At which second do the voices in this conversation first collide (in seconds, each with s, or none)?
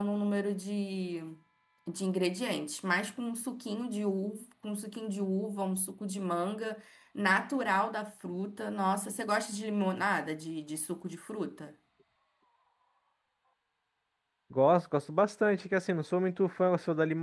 none